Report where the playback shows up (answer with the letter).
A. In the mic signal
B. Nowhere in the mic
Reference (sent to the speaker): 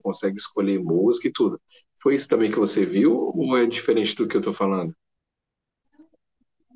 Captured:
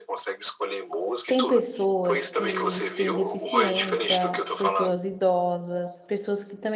A